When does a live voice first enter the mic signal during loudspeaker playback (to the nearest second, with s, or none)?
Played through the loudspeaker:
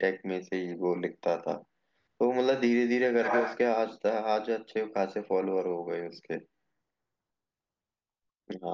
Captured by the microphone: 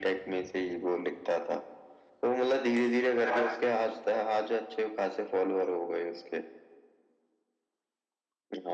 none